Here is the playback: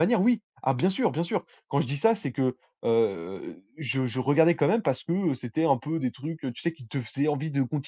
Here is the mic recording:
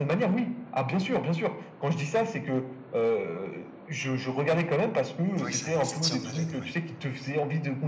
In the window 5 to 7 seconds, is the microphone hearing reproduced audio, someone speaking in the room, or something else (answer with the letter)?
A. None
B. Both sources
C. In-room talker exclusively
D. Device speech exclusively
B